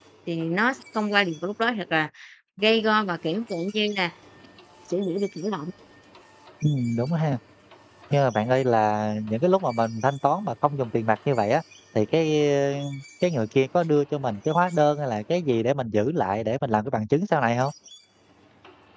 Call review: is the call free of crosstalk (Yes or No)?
Yes